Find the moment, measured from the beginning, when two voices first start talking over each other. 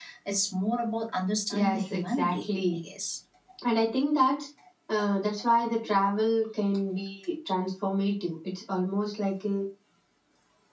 1.5 s

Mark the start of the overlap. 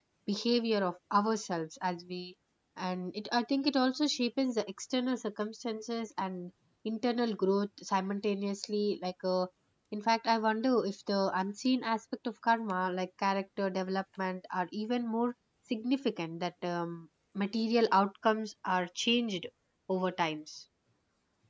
none

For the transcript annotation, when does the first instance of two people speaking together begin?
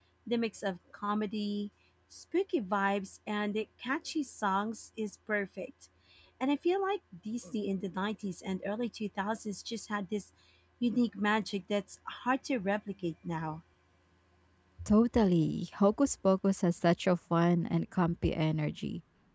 none

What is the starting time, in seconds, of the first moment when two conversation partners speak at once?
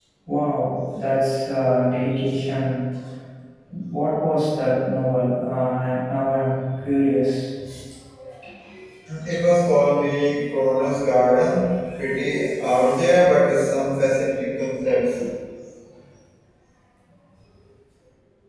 none

